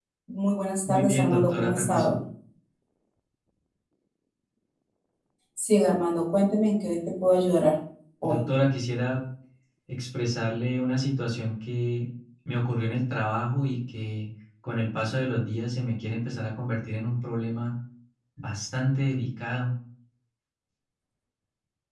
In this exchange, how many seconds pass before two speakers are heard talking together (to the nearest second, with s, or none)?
1 s